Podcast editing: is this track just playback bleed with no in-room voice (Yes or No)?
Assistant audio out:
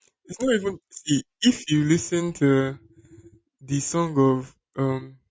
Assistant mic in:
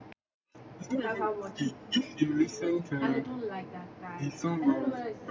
No